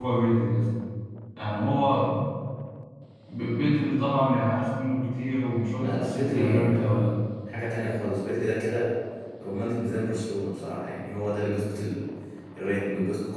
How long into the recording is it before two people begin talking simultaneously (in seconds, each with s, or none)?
5.8 s